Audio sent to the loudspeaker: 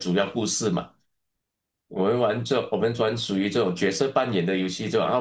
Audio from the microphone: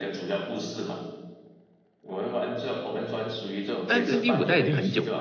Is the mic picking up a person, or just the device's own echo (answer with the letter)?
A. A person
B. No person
A